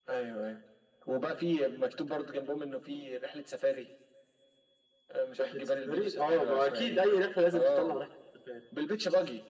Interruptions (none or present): present